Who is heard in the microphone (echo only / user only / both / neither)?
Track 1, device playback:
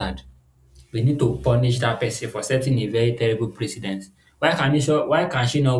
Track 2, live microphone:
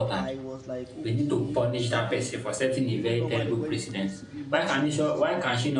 both